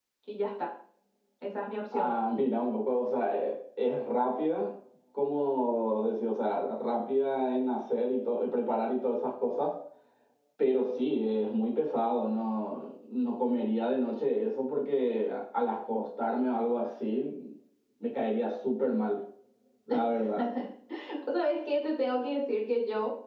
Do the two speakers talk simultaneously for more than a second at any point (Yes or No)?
No